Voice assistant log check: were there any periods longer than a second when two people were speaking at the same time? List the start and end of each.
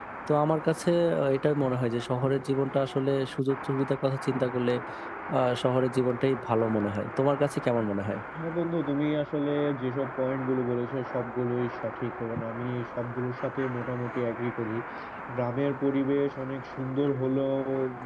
none

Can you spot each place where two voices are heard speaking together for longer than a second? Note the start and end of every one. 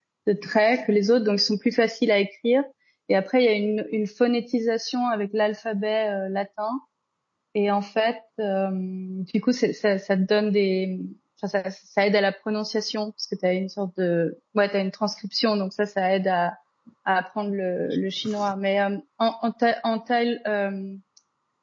none

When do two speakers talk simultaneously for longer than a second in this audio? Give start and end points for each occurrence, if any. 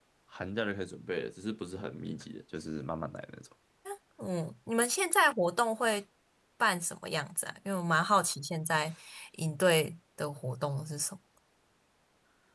none

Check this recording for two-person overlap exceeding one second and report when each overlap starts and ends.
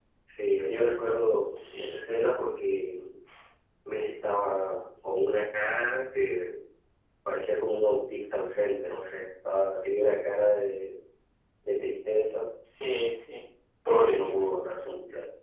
none

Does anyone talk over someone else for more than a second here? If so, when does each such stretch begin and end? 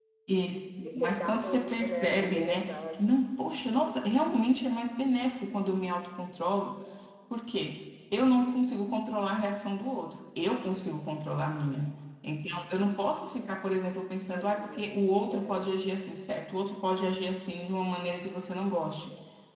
0.8-3.0

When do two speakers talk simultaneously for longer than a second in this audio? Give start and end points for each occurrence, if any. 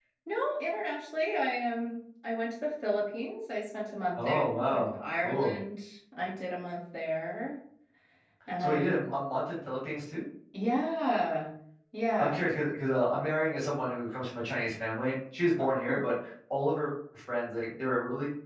4.2-5.5

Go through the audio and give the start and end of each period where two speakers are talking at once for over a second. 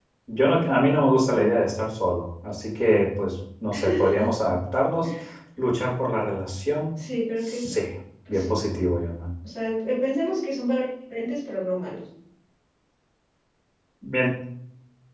none

